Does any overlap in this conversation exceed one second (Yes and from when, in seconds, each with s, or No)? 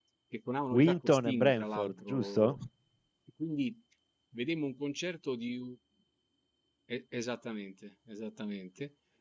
Yes, from 0.7 s